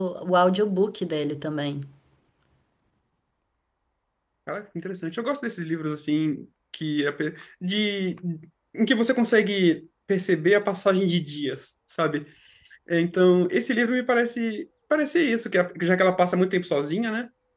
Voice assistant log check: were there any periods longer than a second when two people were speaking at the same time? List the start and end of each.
none

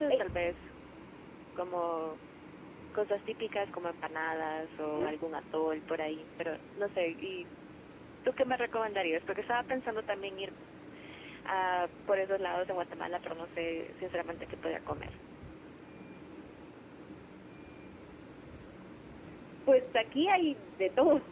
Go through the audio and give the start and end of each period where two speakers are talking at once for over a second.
none

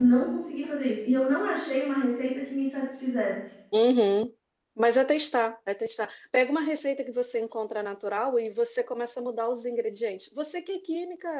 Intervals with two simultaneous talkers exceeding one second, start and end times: none

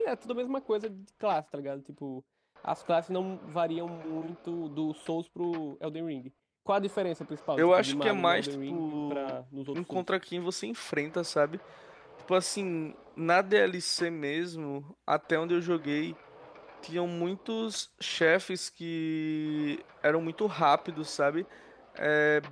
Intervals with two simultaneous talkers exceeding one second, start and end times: 7.6-9.3

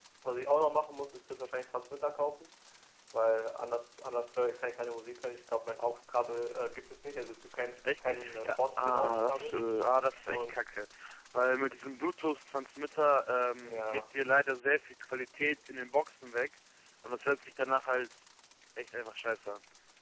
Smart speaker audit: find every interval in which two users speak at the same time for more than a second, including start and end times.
7.8-9.6

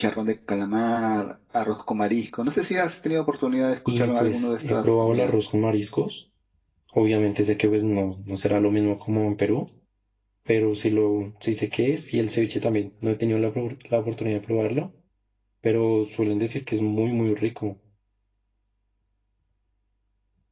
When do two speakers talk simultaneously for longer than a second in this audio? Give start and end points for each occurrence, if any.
3.9-5.3

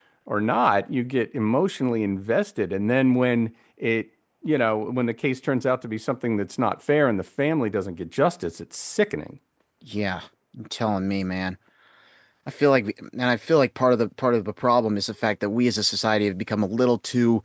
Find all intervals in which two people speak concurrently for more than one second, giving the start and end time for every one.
none

